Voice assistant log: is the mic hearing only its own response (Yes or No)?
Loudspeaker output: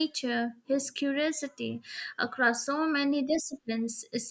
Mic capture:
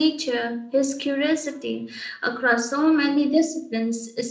Yes